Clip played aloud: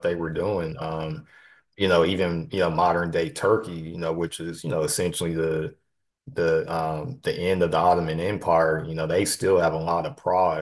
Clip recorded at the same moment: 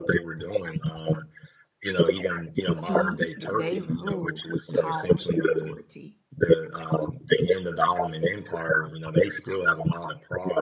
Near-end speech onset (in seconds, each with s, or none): 2.7 s